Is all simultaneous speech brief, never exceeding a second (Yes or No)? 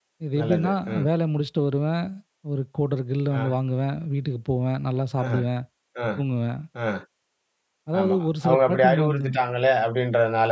No